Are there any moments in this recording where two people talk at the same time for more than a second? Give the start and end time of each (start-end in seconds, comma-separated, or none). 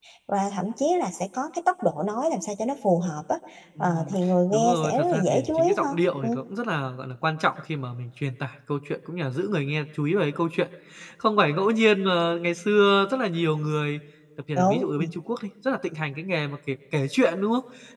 4.5-6.4